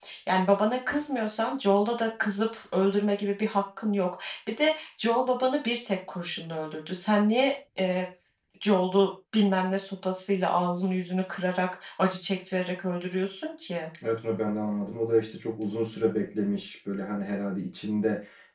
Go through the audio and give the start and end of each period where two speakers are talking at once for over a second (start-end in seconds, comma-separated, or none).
none